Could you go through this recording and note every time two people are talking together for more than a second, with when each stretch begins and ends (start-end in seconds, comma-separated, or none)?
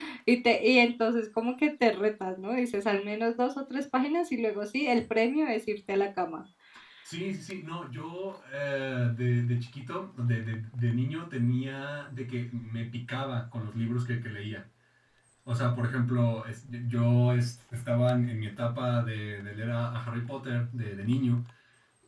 none